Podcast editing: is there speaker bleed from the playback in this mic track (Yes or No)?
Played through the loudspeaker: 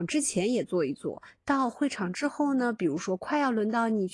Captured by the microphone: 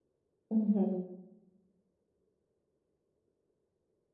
No